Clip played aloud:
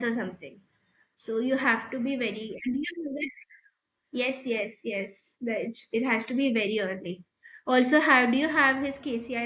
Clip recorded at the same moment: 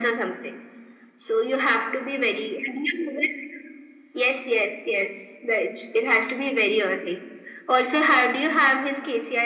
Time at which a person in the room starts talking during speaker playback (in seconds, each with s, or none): none